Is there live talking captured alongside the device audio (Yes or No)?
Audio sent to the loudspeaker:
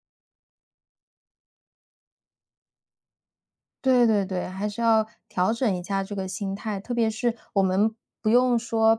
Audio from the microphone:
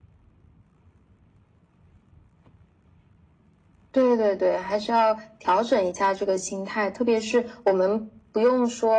No